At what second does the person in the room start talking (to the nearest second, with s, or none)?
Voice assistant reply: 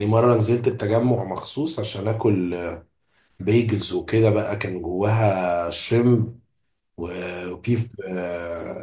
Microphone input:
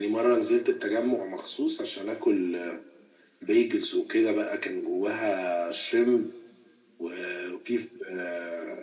none